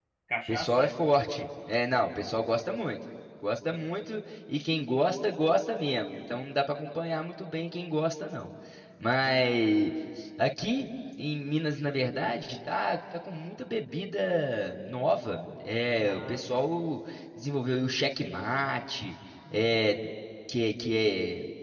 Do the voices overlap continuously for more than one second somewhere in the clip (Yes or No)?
No